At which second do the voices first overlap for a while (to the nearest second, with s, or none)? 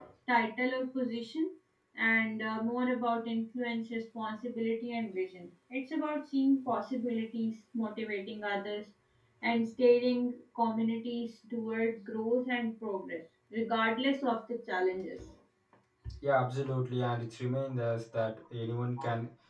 none